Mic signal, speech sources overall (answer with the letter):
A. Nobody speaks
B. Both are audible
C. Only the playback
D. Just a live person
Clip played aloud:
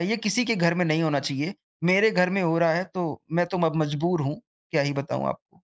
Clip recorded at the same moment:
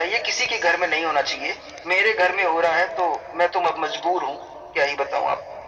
C